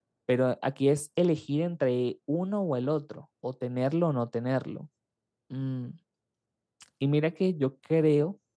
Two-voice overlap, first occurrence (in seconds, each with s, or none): none